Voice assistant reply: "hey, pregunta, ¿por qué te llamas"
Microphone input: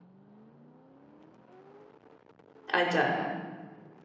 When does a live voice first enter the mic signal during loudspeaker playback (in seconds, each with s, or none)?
2.7 s